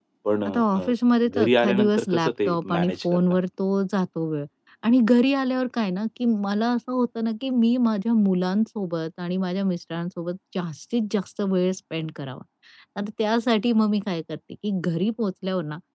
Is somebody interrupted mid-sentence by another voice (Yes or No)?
Yes